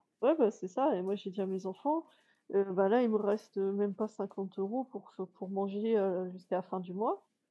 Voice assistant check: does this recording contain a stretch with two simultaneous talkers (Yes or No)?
No